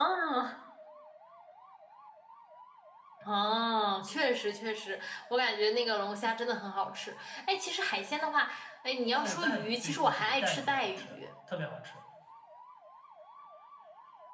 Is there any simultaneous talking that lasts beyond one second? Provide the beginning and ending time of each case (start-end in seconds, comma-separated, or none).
9.1-11.2